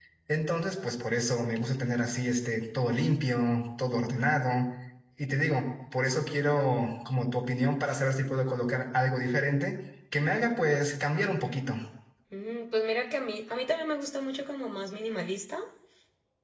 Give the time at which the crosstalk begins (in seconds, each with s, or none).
none